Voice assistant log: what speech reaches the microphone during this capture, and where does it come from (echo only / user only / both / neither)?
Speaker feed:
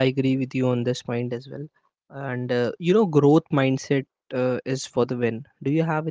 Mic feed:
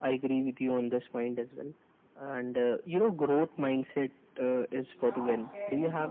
both